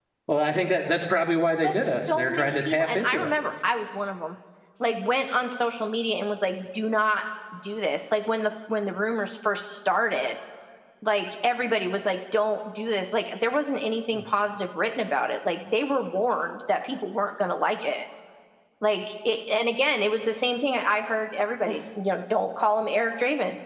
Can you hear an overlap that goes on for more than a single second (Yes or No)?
Yes